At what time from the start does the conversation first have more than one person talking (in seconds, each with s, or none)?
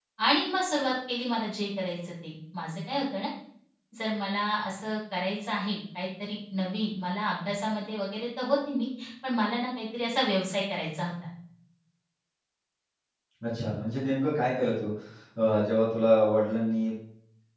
none